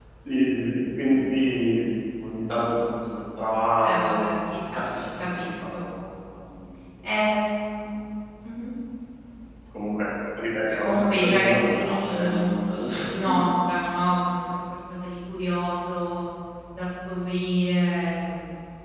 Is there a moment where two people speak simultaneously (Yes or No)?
Yes